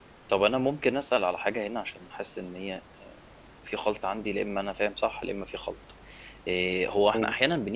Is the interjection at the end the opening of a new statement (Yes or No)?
No